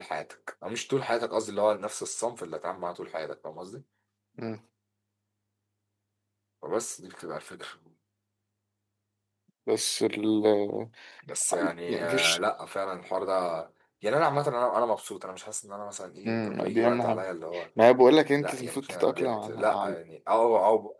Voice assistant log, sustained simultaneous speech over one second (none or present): present